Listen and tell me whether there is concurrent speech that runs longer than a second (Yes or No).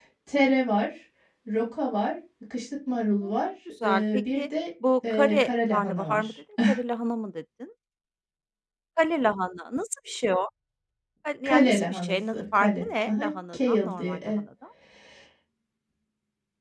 Yes